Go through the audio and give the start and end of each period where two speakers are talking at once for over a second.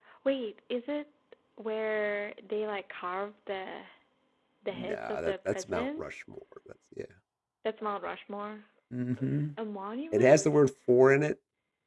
4.7-6.0

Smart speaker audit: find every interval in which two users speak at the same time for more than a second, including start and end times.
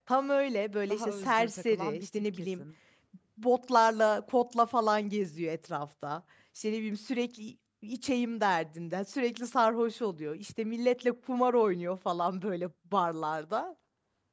0.9-2.6

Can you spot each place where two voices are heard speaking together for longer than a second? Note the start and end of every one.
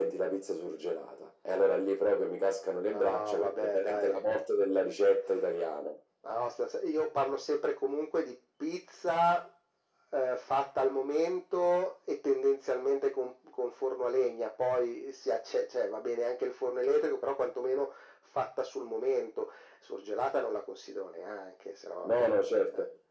2.9-4.2

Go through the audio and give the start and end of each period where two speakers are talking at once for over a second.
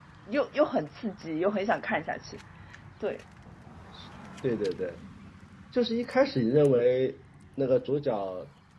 none

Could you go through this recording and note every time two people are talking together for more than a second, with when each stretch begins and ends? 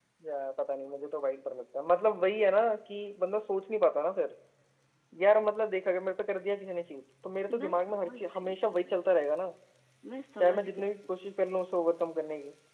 7.5-8.9

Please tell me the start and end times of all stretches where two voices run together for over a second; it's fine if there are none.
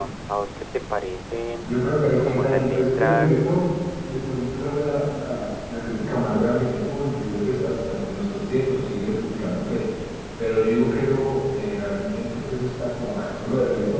2.2-3.5

